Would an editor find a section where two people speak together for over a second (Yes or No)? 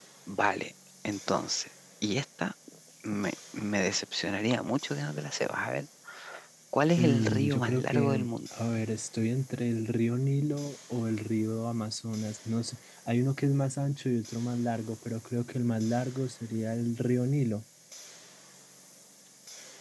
Yes